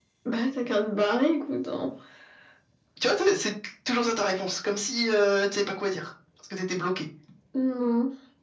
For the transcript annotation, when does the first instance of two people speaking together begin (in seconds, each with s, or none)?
none